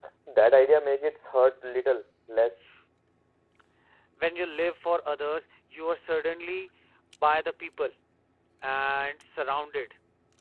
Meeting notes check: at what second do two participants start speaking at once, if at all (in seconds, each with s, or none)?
none